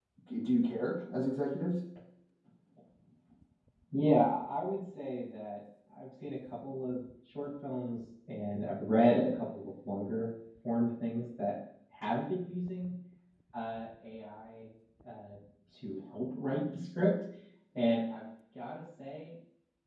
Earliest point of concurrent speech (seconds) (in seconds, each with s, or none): none